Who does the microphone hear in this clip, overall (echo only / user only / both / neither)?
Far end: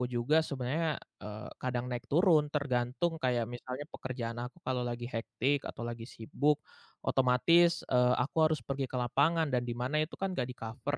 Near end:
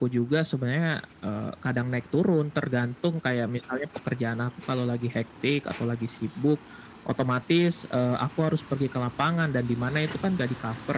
echo only